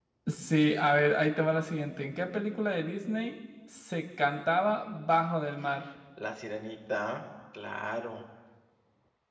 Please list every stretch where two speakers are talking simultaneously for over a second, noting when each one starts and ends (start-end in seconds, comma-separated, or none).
none